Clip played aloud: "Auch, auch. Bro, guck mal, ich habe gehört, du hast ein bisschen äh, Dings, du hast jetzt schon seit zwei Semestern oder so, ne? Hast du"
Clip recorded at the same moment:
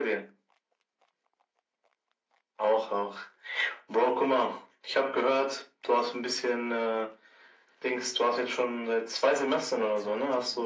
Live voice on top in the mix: No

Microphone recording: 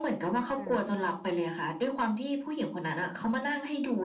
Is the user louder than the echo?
No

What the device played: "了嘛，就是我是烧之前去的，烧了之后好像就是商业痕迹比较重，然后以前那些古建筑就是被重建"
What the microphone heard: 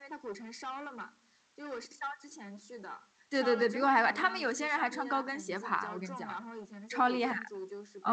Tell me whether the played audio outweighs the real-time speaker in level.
No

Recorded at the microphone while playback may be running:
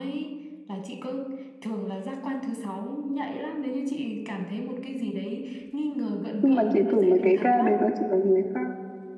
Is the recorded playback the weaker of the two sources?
Yes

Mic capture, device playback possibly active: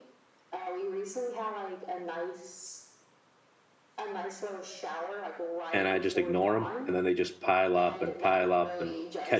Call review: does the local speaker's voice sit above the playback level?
Yes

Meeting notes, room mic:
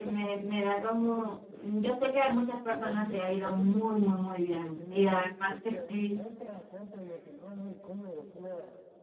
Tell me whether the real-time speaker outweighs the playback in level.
Yes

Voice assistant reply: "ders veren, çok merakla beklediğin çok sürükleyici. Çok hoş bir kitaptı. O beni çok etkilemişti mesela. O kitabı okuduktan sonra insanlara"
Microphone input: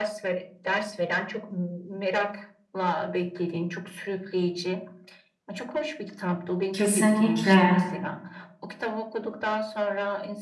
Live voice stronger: Yes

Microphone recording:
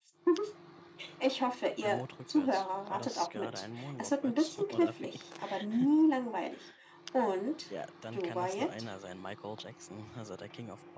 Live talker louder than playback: No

